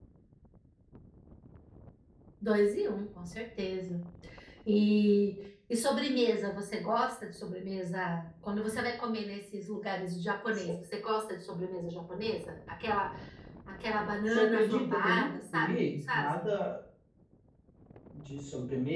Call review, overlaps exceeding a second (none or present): present